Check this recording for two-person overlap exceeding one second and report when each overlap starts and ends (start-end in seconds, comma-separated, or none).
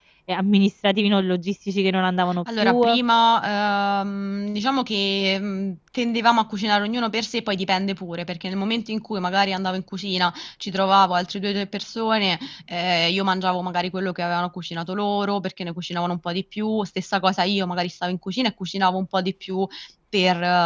none